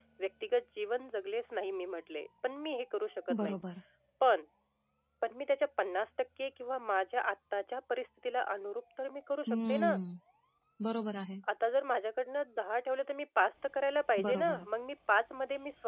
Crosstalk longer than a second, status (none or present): none